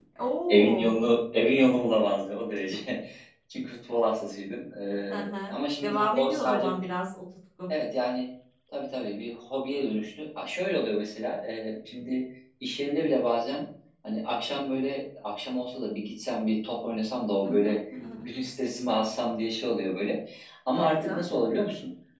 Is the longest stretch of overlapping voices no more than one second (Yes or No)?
No